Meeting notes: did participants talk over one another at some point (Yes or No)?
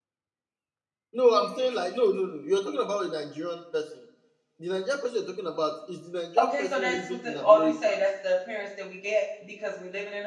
Yes